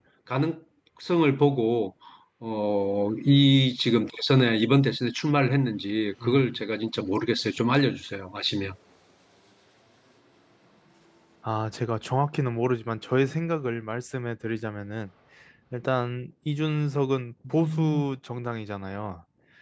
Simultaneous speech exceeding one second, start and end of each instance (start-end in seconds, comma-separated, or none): none